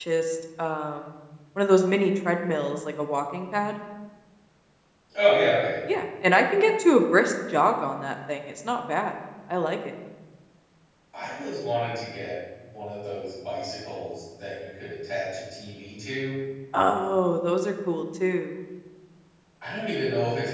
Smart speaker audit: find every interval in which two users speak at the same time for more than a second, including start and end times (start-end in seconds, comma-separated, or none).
none